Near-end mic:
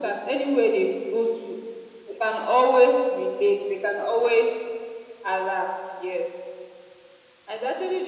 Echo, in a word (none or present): present